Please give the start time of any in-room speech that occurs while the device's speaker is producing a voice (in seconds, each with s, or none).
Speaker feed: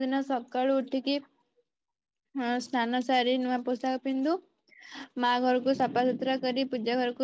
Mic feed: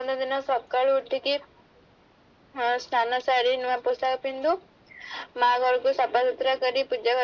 none